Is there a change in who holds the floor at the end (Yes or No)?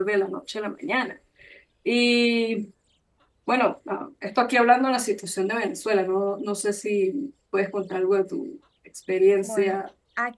Yes